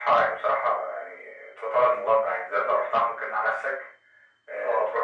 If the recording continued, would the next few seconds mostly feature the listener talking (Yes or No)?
No